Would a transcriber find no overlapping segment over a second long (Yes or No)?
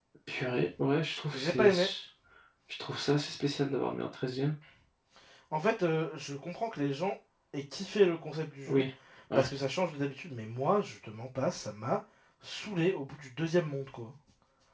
Yes